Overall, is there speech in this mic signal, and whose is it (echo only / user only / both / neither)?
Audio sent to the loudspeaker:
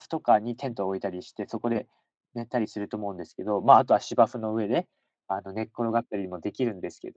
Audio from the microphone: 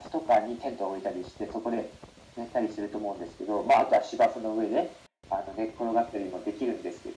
echo only